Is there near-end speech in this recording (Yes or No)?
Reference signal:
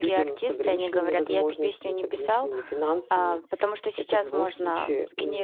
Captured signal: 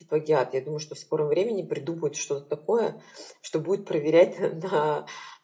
Yes